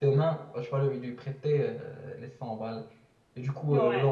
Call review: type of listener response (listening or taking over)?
listening